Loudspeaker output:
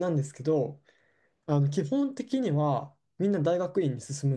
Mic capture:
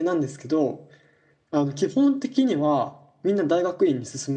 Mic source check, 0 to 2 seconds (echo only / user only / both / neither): echo only